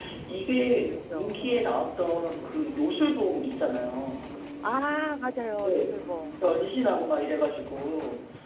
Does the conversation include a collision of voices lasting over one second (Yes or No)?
No